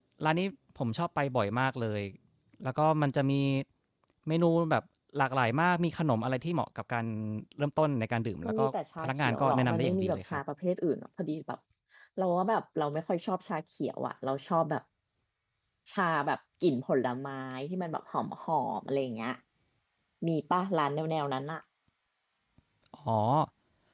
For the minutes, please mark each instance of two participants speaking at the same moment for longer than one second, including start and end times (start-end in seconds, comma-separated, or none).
9.0-10.4